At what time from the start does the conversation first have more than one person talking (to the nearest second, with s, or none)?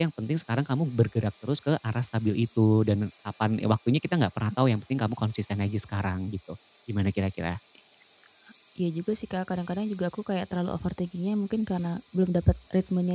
none